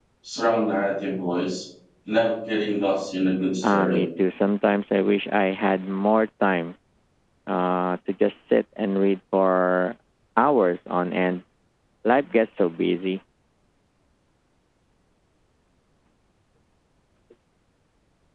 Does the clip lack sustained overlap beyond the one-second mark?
Yes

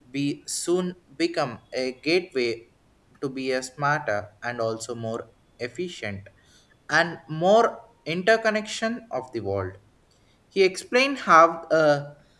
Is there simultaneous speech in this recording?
No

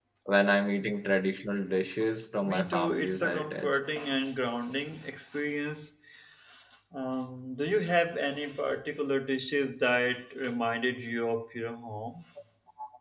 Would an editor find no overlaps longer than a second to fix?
No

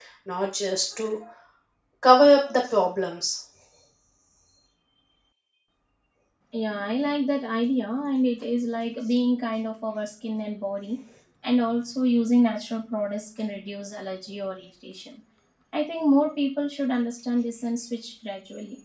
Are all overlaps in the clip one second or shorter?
Yes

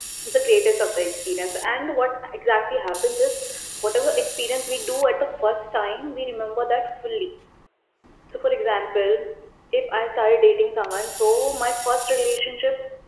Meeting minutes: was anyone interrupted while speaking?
No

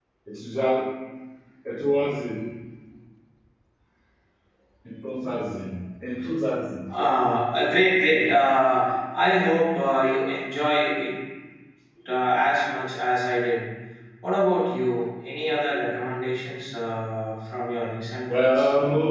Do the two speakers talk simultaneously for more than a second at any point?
No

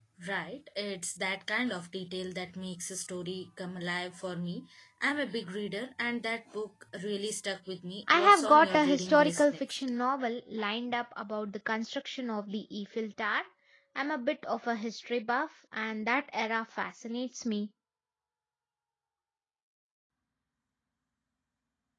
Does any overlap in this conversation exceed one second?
Yes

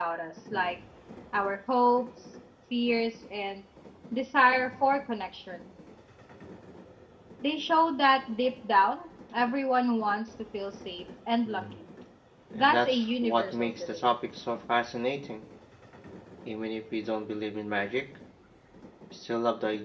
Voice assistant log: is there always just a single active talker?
No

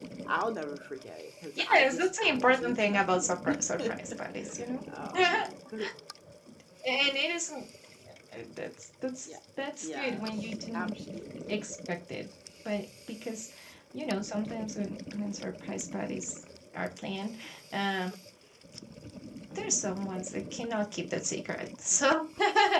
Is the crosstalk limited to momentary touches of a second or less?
No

